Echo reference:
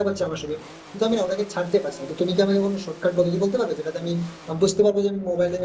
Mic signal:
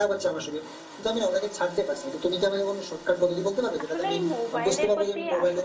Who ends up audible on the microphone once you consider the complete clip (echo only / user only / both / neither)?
both